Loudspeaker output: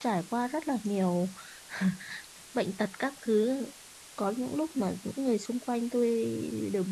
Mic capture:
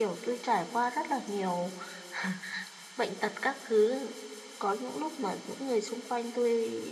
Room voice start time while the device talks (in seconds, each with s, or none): none